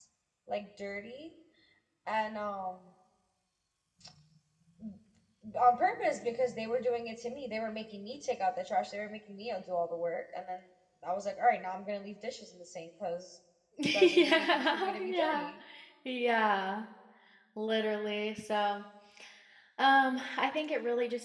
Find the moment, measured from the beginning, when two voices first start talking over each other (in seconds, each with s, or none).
13.8 s